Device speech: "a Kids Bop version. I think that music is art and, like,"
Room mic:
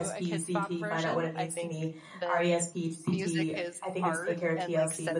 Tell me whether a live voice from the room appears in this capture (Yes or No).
Yes